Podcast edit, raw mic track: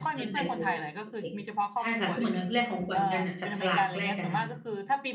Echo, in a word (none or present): present